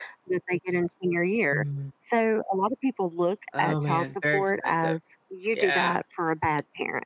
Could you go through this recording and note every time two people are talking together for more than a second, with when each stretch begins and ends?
3.6-4.9

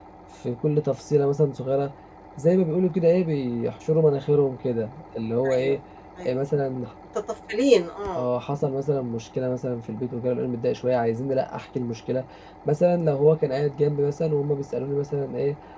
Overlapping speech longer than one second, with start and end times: none

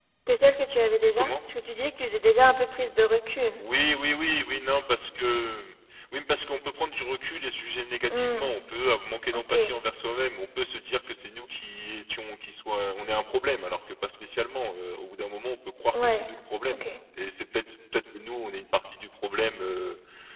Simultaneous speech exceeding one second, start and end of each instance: none

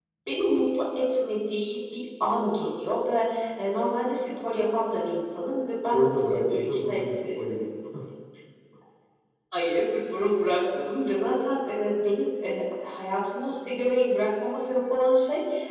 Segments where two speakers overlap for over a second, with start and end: 5.9-7.3

